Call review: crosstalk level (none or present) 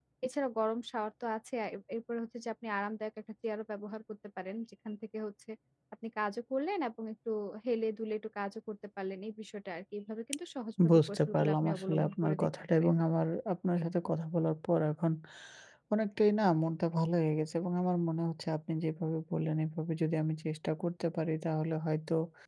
present